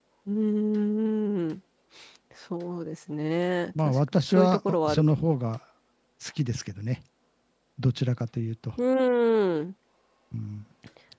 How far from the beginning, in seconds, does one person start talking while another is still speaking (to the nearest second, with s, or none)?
4 s